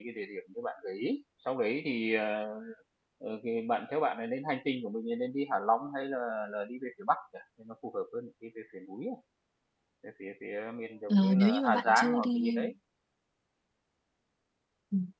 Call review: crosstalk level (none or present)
present